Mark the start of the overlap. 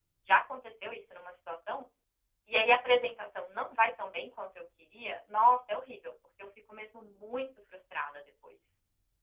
none

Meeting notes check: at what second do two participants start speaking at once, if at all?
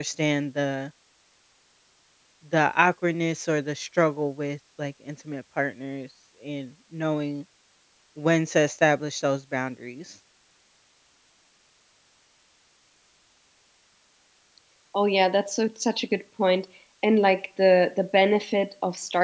none

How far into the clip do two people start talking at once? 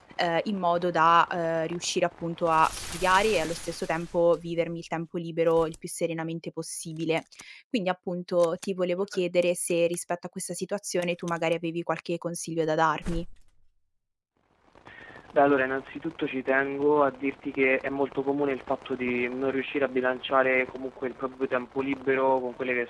none

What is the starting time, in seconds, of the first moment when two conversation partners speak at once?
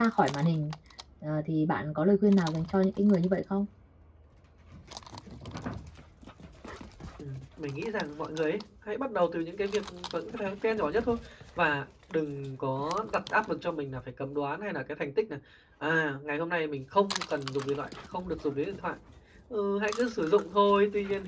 none

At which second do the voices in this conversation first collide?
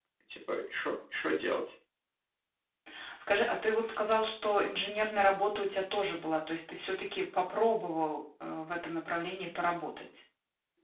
none

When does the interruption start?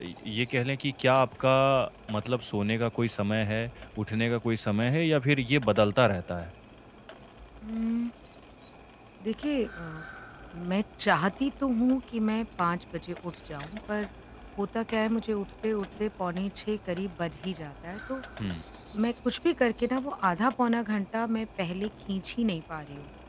none

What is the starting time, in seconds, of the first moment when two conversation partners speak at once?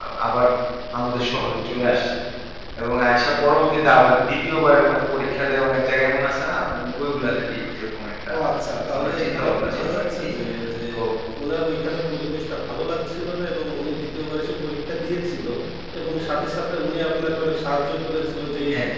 8.9 s

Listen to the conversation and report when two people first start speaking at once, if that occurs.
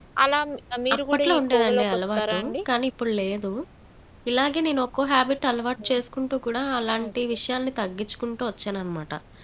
1.0 s

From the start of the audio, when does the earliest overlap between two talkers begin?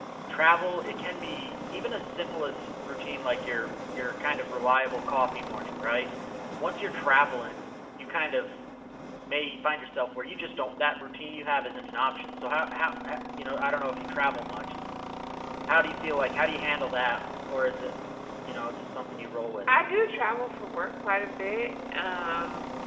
none

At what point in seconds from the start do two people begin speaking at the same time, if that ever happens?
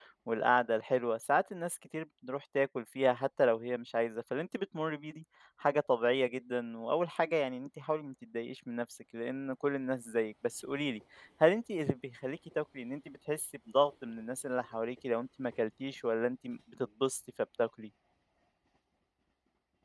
none

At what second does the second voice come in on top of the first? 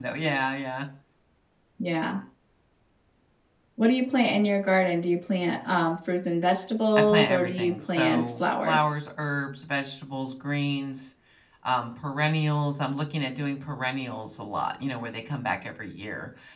7.0 s

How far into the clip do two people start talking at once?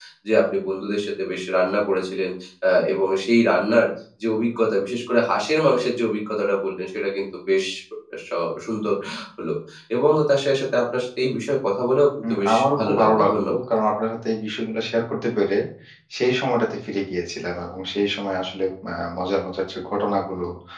12.2 s

